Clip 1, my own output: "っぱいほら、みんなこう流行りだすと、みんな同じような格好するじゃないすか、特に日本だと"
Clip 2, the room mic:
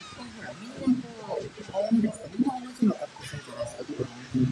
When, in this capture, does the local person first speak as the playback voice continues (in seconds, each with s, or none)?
none